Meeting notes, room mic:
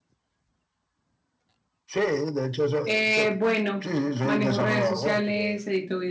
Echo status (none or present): present